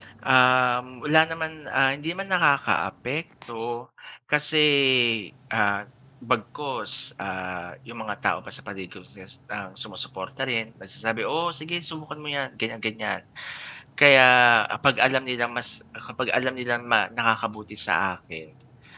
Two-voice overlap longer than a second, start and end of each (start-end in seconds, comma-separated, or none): none